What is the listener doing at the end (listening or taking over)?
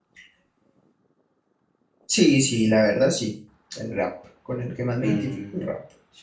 taking over